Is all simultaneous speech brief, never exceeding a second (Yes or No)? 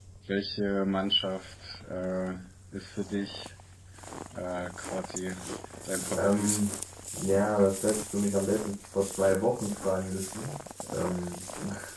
Yes